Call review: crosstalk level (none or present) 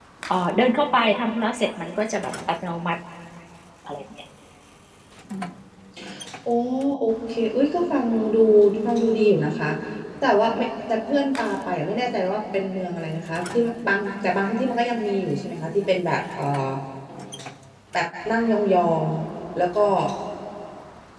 none